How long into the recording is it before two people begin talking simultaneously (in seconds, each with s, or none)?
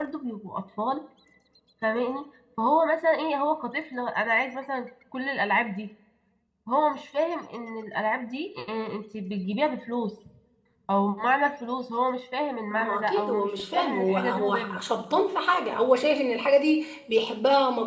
12.7 s